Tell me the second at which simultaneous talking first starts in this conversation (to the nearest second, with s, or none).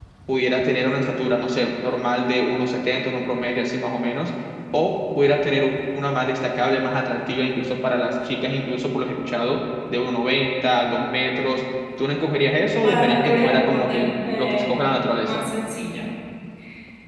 13 s